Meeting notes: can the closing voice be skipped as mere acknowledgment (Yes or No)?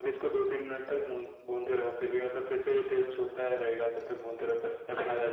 No